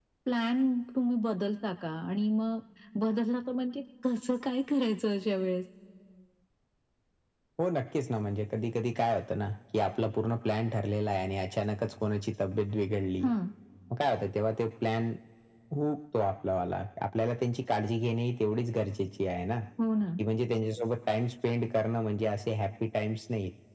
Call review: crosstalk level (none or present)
none